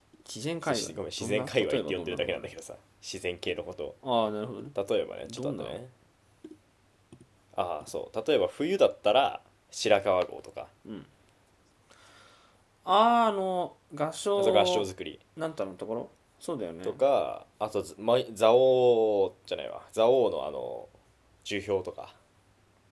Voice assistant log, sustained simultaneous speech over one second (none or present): present